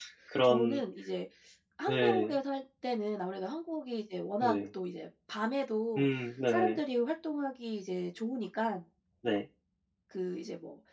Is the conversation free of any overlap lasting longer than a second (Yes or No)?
Yes